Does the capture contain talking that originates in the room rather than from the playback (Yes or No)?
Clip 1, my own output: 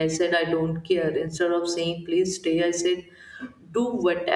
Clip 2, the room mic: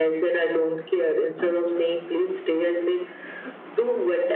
No